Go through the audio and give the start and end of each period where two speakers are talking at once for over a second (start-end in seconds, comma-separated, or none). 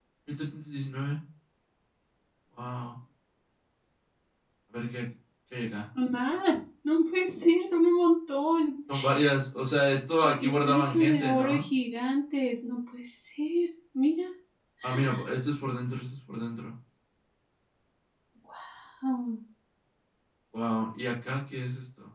10.2-11.6